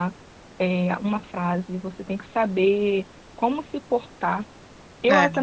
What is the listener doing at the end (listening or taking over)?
listening